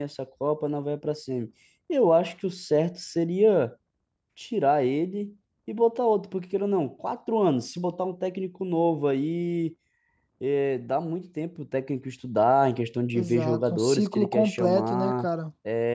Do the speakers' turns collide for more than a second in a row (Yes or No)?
Yes